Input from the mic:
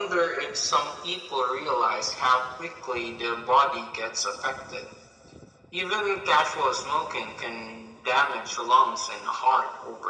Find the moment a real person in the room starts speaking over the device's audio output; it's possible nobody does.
none

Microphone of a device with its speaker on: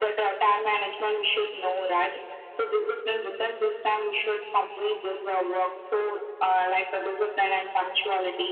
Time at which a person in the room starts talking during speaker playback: none

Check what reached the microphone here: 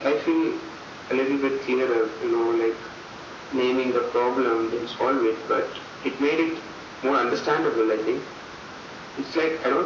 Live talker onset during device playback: none

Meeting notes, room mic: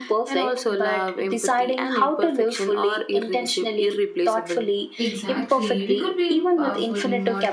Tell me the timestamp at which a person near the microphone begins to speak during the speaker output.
5.0 s

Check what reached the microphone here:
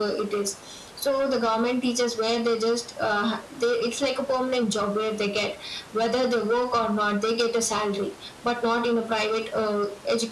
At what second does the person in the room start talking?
none

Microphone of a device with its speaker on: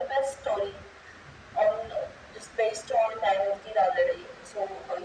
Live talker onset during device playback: none

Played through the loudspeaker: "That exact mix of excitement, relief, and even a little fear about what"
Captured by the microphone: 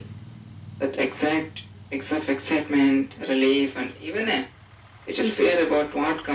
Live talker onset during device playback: none

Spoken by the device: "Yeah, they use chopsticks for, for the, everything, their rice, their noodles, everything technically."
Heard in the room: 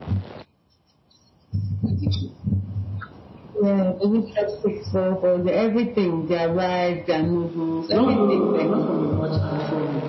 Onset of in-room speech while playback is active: 7.9 s

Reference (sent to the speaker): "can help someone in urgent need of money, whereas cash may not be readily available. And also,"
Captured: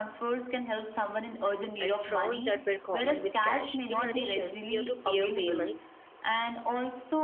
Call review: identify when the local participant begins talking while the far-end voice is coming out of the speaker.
1.8 s

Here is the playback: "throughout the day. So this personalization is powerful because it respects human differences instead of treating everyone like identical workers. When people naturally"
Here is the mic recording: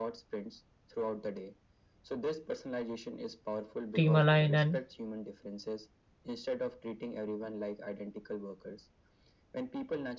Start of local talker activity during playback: 3.9 s

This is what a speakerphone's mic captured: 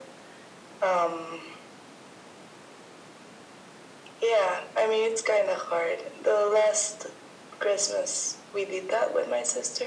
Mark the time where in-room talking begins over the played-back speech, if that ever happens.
none

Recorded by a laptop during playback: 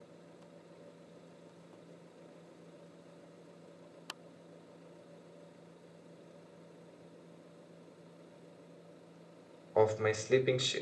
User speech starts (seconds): 9.8 s

